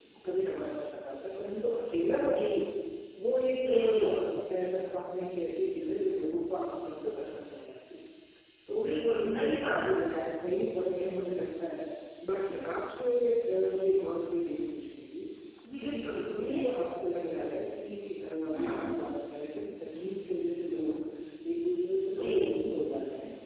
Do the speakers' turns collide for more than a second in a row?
Yes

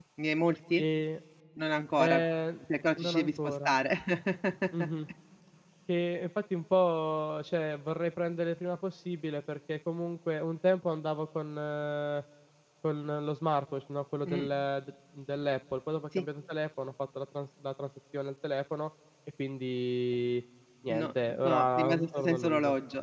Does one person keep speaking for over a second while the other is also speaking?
Yes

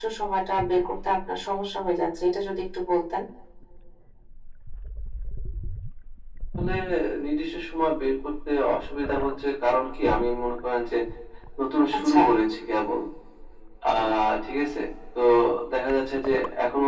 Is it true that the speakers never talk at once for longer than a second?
Yes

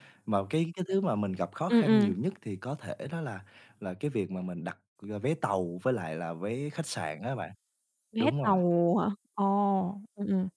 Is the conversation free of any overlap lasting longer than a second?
Yes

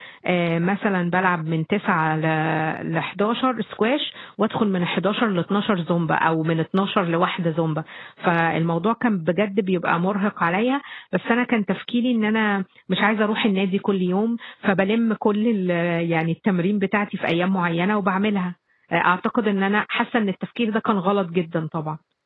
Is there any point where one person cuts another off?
No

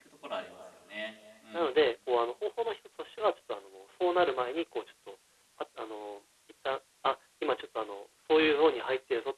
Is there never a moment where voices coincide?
Yes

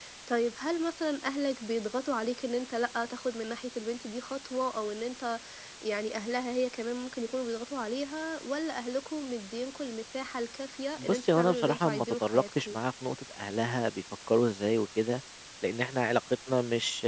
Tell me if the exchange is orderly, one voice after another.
No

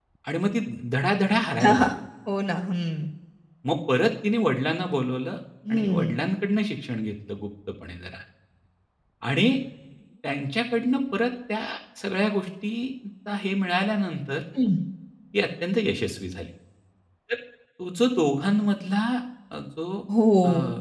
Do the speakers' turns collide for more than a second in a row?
No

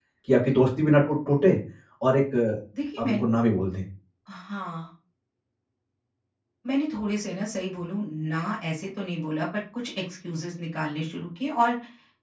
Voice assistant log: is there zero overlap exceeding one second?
Yes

